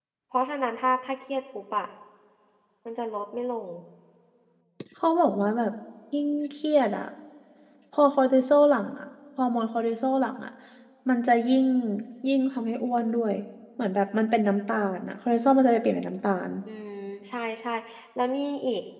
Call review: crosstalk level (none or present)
none